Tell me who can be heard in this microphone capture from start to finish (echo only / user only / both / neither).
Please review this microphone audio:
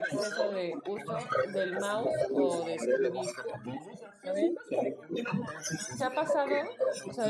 both